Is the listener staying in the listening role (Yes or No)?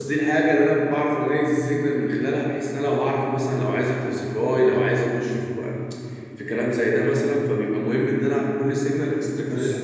Yes